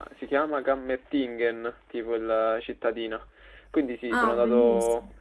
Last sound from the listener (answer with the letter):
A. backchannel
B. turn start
A